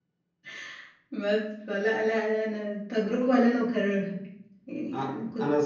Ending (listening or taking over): taking over